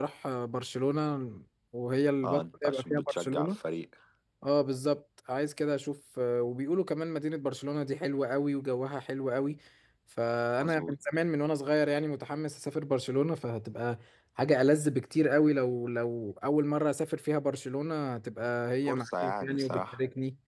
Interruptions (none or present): present